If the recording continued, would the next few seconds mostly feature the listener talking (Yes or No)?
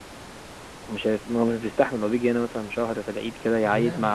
No